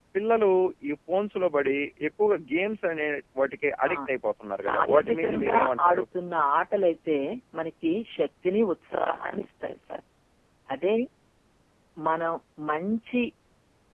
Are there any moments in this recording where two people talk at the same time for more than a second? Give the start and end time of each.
4.6-6.0

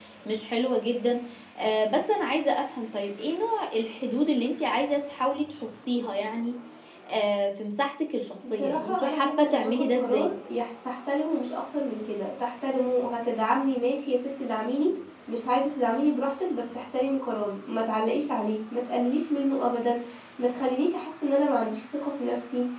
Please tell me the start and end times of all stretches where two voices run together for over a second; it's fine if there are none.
8.5-10.3

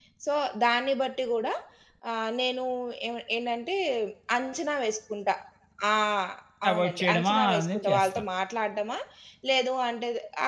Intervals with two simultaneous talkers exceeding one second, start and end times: 6.7-8.2

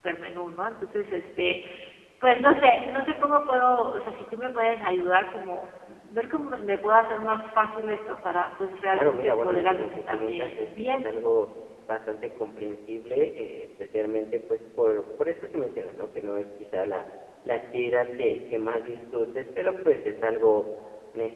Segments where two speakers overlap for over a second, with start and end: 8.9-11.1

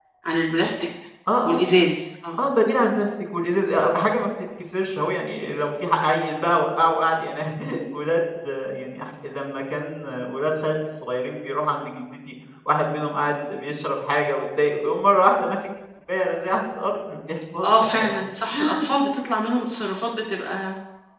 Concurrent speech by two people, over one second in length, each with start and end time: none

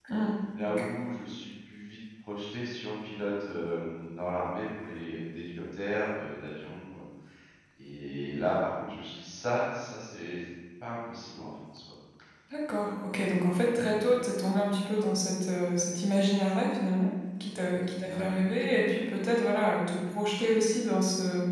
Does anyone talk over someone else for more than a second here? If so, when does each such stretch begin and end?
none

